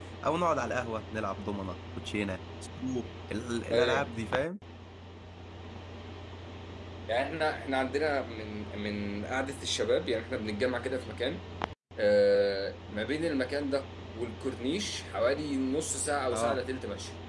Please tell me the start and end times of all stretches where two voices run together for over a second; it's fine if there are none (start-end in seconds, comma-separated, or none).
none